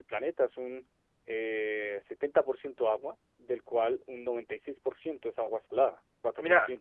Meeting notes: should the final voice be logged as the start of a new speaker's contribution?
Yes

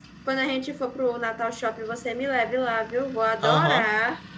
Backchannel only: No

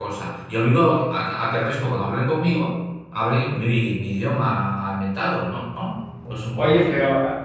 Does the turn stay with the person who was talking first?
No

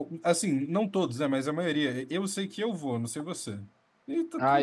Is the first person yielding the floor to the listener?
Yes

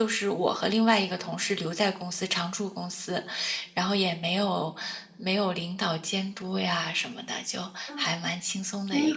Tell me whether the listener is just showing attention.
No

